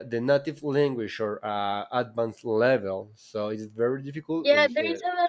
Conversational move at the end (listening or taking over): taking over